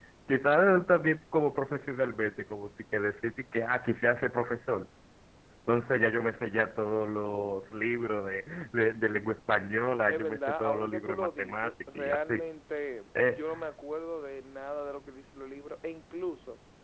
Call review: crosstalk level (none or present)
present